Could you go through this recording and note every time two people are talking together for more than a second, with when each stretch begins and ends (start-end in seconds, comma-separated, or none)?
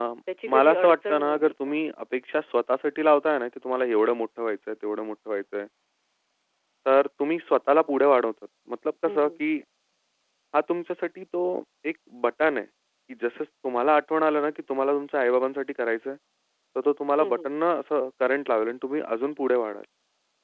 0.5-1.7